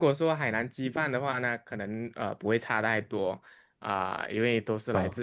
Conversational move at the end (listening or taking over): listening